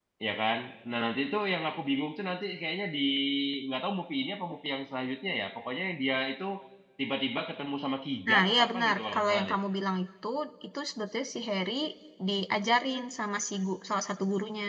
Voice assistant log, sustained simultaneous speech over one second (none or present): present